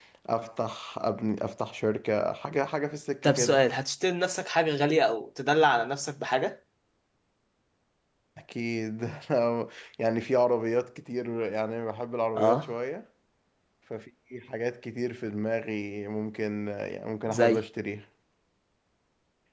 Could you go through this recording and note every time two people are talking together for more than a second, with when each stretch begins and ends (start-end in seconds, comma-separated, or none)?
none